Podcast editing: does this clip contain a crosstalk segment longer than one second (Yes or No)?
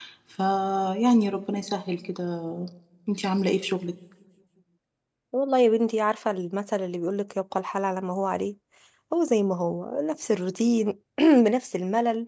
No